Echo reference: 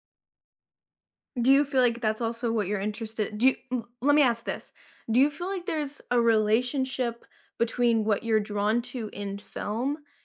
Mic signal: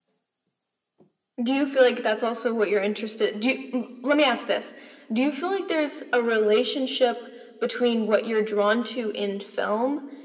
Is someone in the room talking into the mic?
No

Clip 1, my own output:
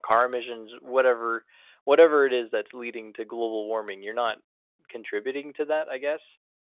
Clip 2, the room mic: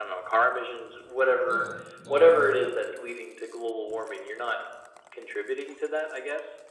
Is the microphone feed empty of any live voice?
No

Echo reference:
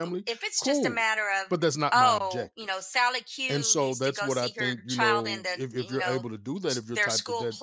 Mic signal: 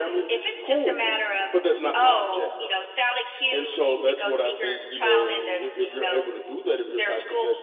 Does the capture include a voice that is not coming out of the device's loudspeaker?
No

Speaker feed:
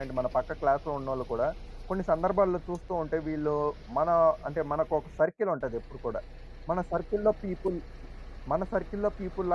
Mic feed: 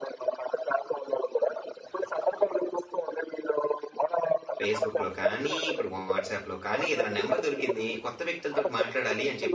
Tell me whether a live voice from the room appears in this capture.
Yes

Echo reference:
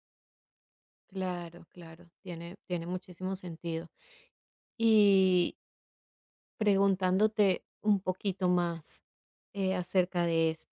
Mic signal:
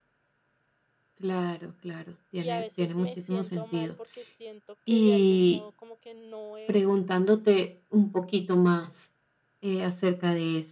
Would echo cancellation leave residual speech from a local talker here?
Yes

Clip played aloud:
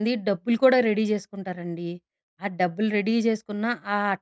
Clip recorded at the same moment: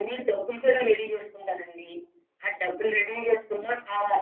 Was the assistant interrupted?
No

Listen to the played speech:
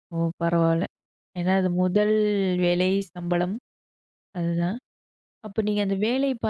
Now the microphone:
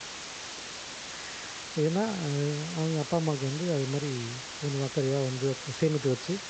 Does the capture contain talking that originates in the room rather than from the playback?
Yes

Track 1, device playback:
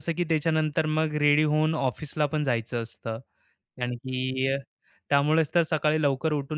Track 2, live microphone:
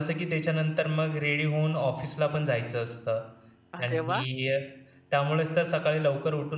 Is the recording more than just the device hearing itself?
Yes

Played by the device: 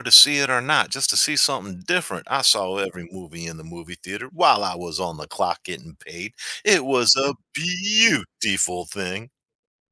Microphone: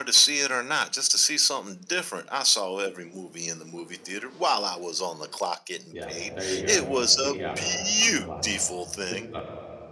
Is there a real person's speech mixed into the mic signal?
Yes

